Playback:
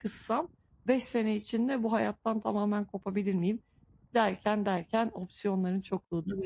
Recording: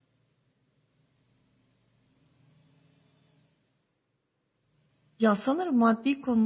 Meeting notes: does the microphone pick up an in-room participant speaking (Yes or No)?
Yes